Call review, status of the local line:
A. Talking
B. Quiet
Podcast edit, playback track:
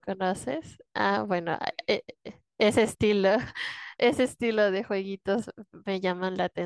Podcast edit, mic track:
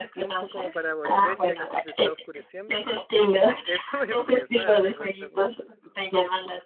A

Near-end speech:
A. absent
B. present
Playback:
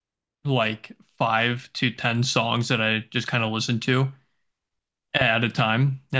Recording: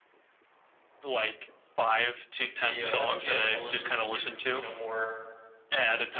B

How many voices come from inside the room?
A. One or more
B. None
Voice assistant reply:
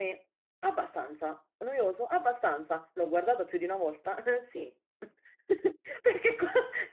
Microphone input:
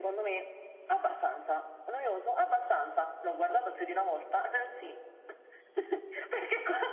B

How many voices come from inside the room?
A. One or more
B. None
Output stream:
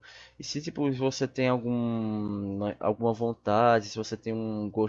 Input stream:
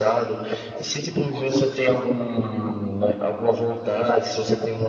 B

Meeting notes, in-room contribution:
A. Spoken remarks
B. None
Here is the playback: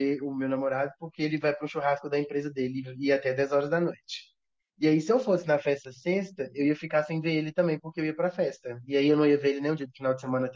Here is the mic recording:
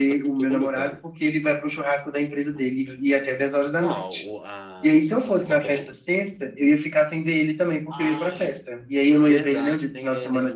A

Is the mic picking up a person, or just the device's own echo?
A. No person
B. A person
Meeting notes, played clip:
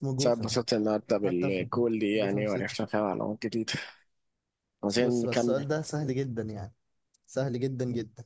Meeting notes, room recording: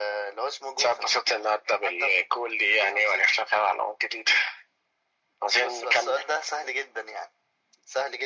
A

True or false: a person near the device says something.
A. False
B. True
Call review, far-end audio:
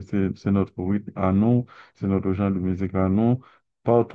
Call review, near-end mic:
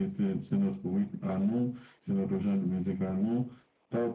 A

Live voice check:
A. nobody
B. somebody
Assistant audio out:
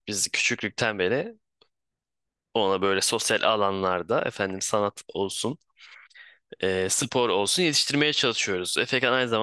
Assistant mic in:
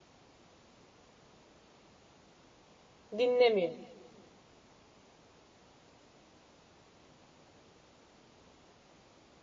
B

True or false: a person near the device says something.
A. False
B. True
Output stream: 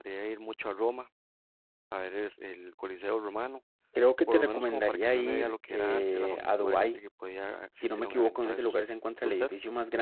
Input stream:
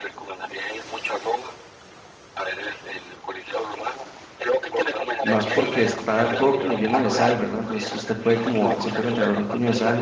B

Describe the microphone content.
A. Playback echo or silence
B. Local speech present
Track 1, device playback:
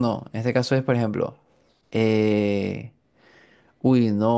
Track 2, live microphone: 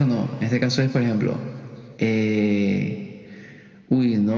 A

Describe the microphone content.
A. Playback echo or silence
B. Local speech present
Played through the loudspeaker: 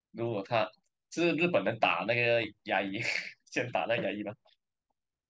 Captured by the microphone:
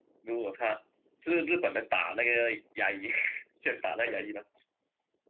A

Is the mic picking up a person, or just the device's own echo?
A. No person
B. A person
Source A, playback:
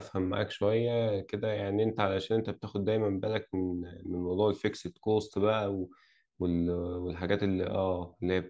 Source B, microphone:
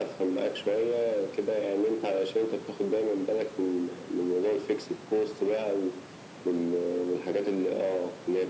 A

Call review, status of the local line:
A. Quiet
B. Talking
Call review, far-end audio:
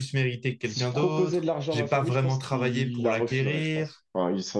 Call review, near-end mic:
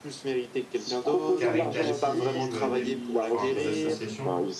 B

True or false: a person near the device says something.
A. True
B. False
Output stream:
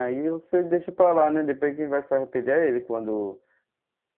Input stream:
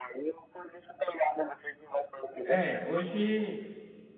A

